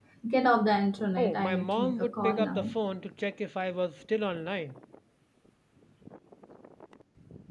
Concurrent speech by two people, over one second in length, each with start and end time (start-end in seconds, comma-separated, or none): 1.2-2.8